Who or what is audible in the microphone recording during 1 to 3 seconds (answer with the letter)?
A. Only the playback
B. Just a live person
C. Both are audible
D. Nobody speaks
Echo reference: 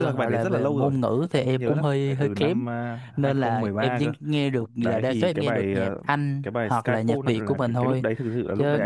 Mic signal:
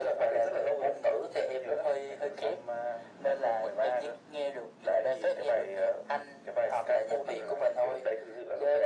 A